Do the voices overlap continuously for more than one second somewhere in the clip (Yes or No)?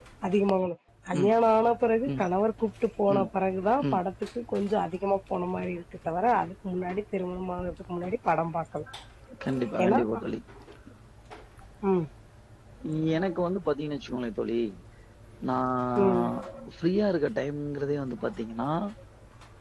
No